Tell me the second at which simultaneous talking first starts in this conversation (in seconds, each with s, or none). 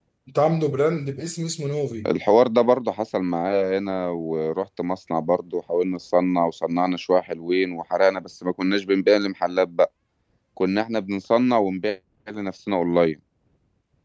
none